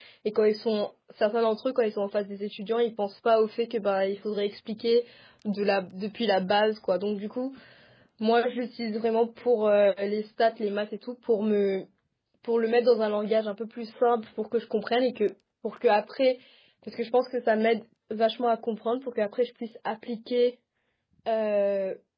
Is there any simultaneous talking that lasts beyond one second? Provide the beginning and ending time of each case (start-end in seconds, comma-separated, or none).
none